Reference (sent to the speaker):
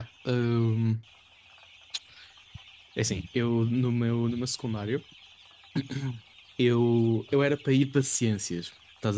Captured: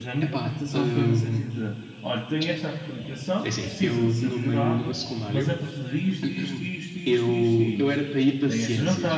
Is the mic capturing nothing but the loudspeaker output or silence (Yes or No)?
No